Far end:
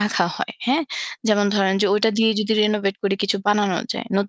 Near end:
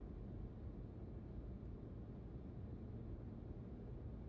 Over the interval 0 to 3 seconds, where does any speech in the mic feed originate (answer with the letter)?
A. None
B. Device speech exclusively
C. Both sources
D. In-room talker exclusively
A